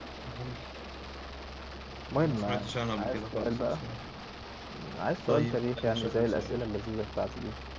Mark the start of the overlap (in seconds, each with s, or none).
2.1 s